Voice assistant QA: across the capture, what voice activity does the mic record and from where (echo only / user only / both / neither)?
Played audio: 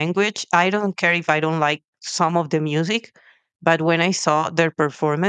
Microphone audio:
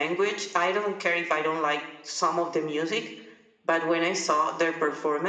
echo only